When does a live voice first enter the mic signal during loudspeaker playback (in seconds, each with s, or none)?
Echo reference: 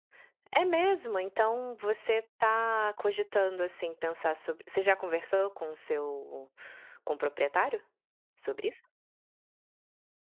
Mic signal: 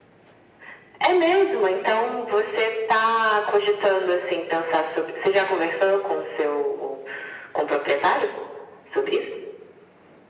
none